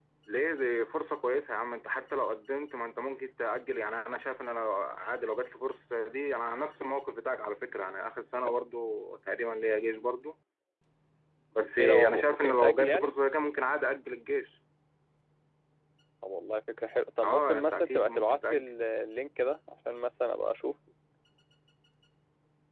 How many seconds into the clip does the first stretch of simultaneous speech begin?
11.8 s

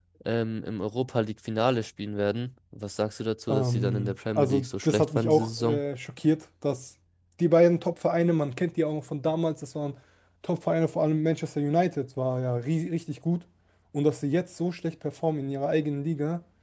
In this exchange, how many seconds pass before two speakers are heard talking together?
3.5 s

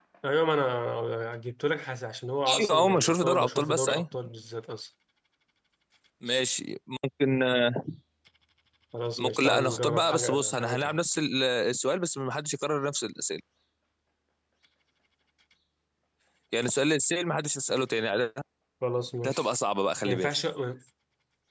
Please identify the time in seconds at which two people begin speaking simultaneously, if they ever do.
2.5 s

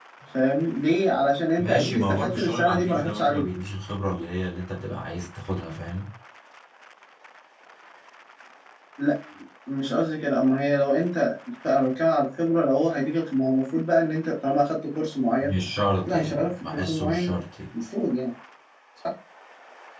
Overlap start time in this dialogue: 1.6 s

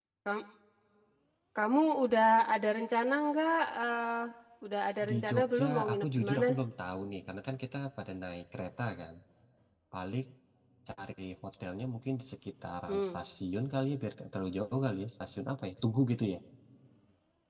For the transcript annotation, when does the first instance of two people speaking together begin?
5.1 s

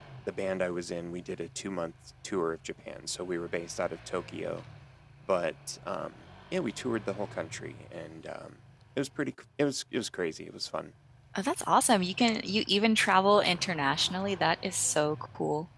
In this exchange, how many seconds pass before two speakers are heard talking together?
none

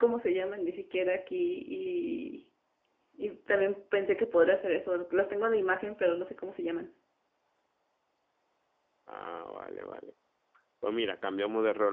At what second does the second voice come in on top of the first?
none

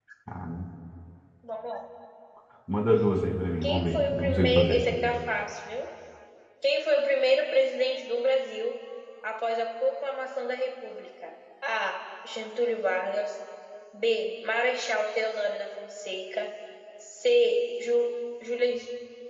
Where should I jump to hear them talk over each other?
3.6 s

